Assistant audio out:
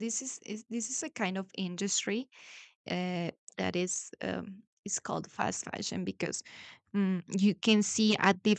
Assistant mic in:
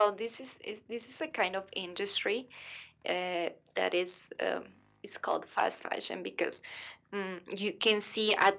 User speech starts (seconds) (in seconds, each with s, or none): none